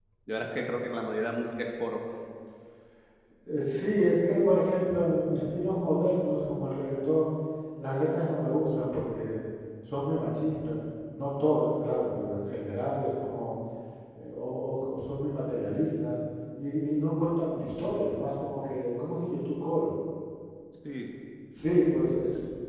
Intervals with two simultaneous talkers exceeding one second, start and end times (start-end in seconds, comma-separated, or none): none